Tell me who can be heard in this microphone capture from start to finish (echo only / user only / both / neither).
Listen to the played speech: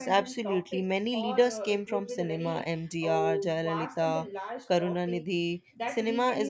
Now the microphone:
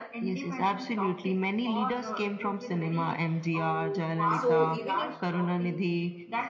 both